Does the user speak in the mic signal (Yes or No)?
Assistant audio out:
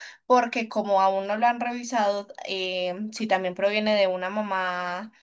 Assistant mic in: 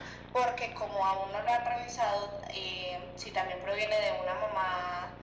No